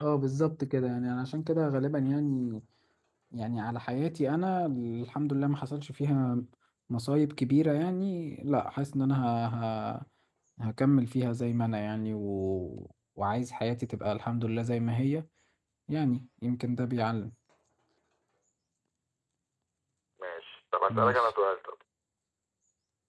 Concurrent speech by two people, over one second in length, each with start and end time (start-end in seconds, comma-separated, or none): none